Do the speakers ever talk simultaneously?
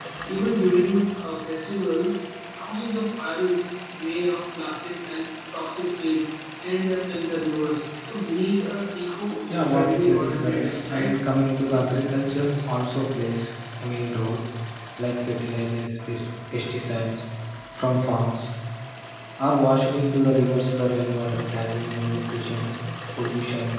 Yes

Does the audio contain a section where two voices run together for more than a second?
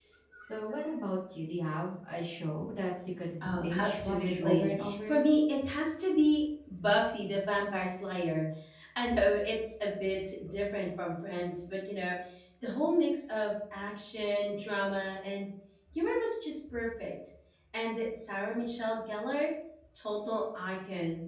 Yes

